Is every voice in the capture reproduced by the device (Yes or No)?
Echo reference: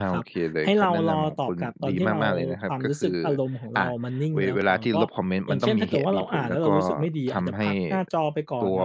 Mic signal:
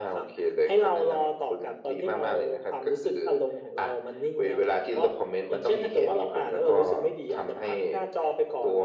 Yes